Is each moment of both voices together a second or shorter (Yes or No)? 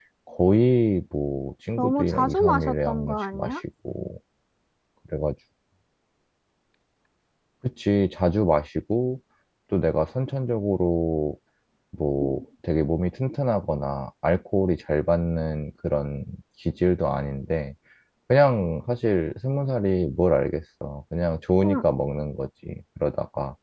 No